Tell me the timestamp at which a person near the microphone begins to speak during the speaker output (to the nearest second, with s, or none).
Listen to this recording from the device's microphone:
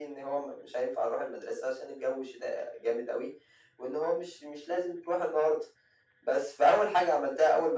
none